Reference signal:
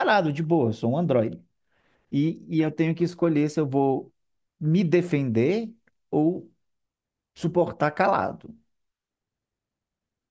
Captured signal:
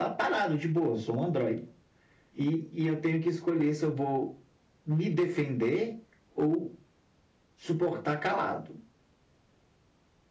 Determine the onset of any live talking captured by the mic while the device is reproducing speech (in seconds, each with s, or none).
none